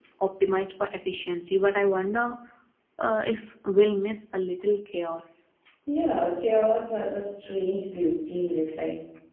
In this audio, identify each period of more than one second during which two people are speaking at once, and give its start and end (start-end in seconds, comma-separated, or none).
none